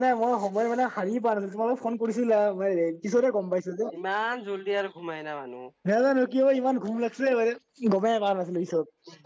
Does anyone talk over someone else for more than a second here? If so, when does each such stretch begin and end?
none

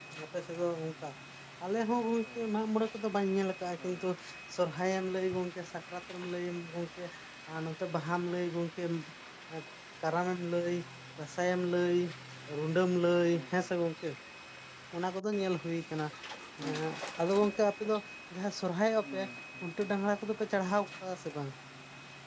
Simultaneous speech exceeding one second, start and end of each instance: none

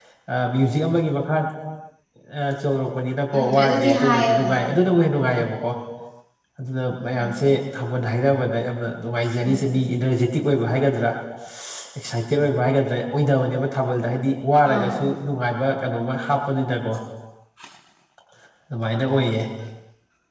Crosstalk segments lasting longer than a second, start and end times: 3.4-4.6

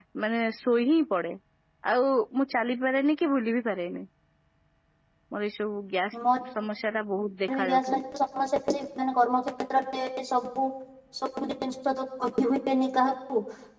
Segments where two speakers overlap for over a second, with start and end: none

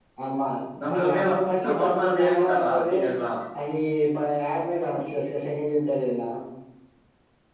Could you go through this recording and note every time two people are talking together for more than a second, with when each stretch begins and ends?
1.6-2.9

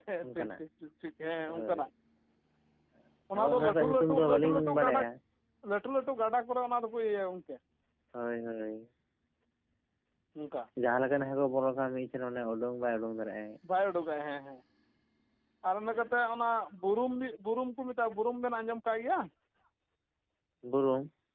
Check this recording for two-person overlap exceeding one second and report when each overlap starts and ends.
3.4-5.0

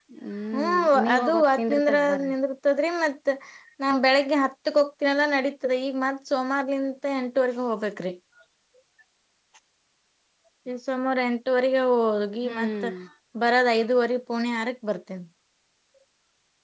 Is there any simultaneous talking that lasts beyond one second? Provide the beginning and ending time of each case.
0.6-2.3

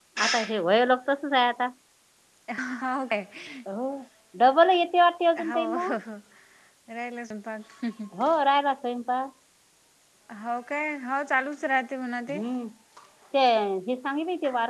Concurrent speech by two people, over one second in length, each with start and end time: none

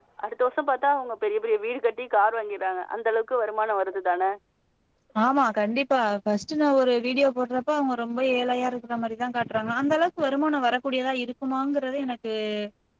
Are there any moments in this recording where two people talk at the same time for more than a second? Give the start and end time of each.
none

